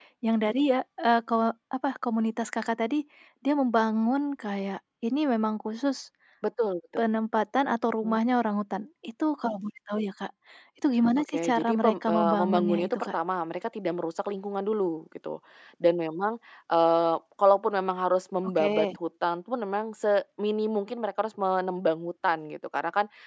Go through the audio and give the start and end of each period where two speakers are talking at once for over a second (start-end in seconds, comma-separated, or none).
11.3-13.1